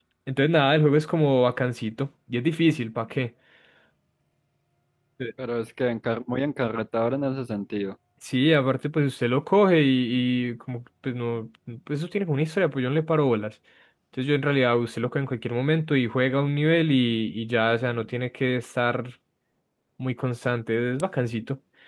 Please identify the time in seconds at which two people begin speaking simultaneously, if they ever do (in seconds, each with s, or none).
none